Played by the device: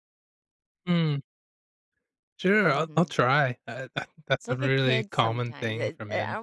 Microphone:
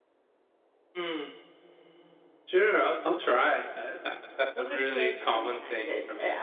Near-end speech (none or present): none